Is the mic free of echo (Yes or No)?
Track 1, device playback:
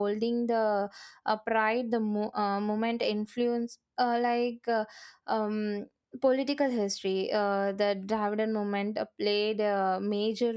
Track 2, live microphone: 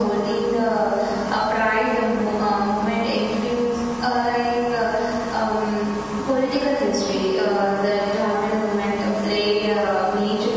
No